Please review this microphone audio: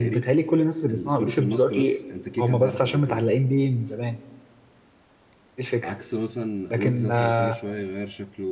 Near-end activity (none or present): present